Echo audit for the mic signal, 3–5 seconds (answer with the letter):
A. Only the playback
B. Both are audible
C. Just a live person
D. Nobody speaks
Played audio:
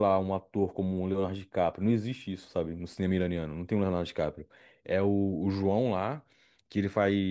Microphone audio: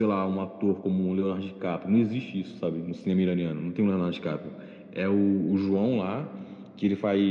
A